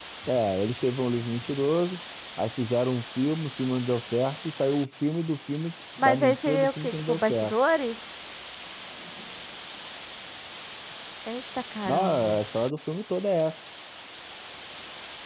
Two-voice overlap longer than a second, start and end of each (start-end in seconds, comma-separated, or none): 6.0-7.5